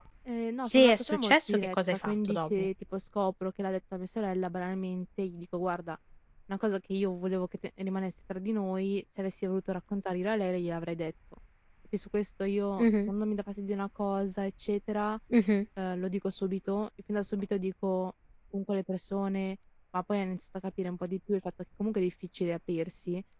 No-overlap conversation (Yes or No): No